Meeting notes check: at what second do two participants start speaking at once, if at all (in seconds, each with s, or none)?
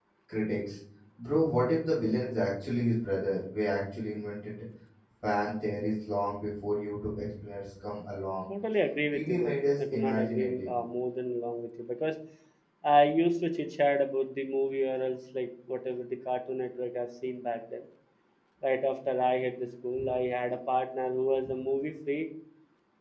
9.1 s